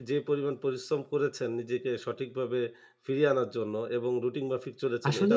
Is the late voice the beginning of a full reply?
Yes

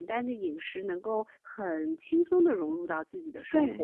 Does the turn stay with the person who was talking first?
No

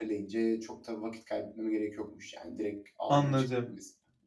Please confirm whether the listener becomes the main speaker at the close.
Yes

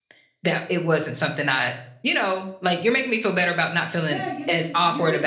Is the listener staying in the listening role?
No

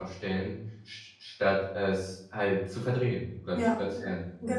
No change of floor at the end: No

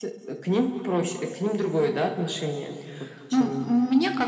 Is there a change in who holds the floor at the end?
Yes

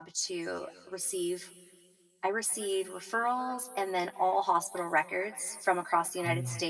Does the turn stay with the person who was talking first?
Yes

